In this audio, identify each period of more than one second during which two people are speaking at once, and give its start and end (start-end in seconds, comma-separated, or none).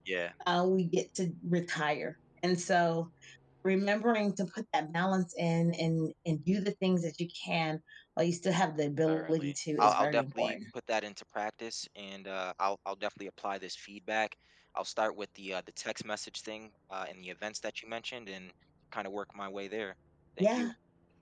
9.1-10.6